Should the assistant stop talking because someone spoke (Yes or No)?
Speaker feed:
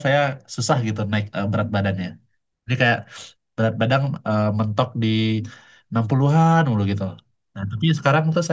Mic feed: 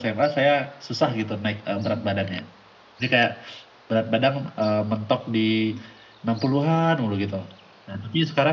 No